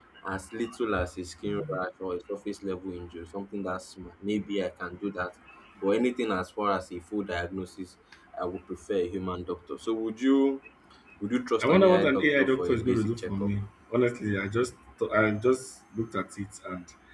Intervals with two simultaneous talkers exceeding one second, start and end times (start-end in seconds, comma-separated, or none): 11.6-13.5